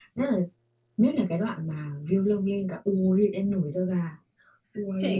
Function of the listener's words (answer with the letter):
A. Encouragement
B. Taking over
B